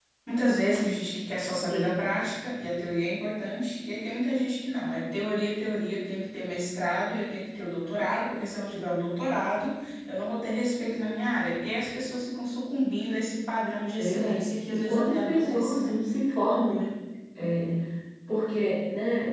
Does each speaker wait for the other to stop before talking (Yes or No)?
No